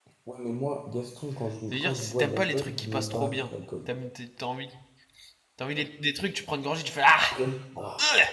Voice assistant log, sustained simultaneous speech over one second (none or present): present